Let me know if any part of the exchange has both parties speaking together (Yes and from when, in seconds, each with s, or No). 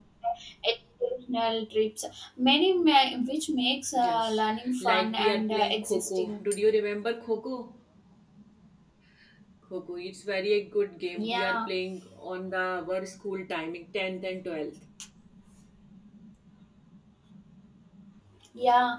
Yes, from 4.1 s